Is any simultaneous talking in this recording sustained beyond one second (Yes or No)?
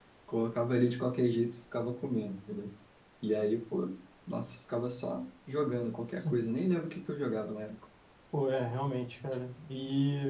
No